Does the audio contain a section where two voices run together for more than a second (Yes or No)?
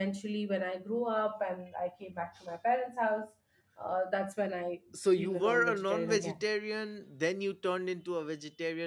Yes